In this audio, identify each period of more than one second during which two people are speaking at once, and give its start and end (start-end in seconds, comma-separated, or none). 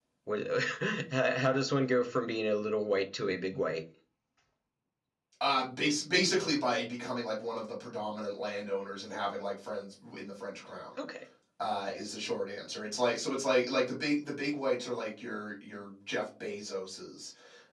none